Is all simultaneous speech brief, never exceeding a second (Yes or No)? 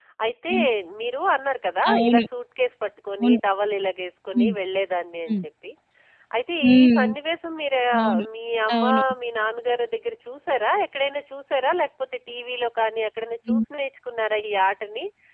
Yes